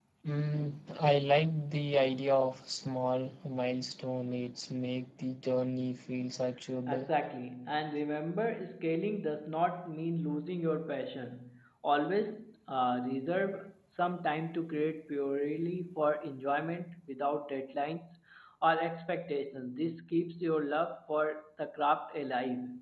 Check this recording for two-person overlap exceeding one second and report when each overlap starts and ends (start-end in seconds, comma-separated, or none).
none